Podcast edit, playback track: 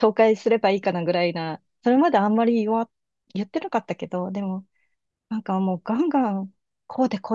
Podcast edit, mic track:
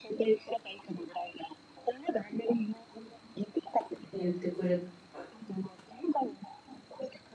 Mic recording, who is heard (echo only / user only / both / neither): both